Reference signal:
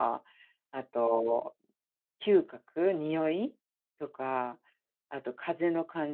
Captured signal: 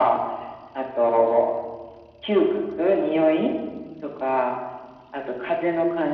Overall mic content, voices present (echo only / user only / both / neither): echo only